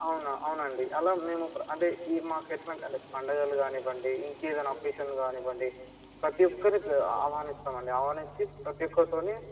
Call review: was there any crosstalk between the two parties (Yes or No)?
No